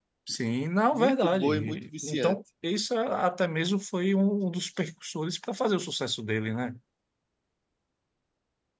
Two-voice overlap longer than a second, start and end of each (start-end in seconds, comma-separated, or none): 0.9-2.4